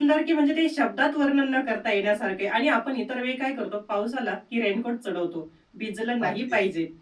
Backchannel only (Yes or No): Yes